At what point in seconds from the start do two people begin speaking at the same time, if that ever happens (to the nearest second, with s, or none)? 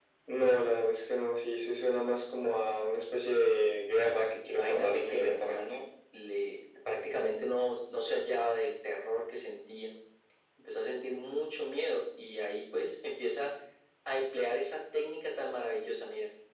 4 s